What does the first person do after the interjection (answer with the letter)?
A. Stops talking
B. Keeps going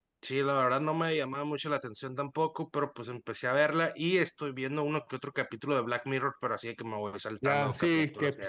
A